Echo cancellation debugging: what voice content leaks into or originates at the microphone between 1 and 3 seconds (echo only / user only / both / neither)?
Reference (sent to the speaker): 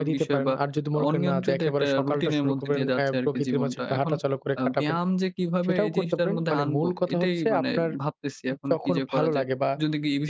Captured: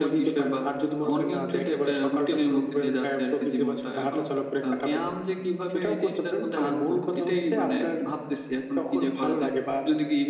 echo only